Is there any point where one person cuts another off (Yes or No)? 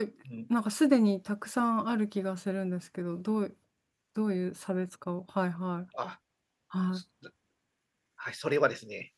No